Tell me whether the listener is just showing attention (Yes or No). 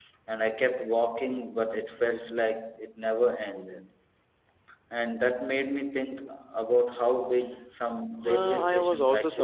No